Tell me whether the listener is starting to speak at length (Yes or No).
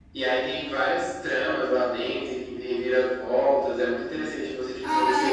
Yes